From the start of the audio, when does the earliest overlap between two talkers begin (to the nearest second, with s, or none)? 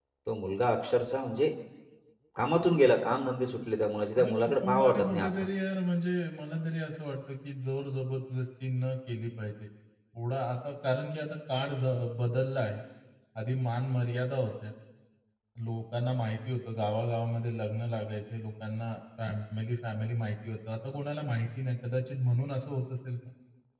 4 s